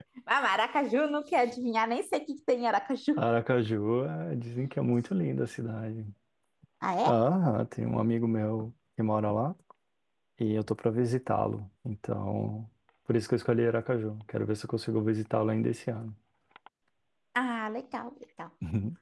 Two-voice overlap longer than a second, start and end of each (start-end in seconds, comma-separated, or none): none